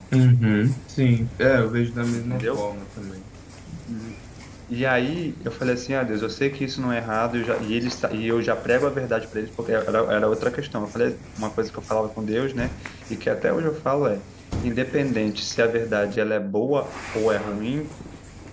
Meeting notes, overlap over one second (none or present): none